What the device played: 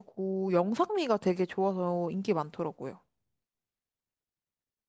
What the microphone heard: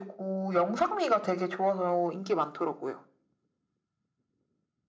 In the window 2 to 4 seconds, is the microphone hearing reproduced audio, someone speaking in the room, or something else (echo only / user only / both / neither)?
echo only